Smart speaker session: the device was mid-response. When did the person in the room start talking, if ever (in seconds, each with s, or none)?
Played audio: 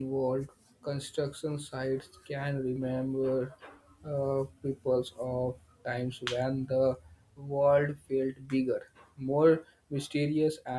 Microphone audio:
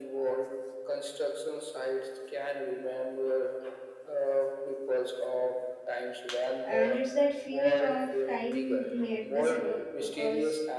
6.6 s